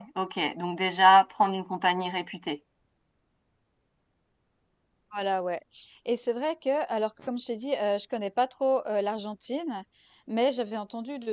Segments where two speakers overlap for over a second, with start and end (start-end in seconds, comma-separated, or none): none